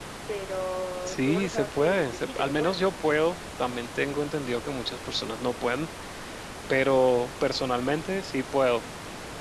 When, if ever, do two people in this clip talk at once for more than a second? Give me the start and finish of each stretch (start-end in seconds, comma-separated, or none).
1.1-2.8